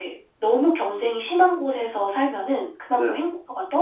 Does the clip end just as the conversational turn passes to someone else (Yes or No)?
No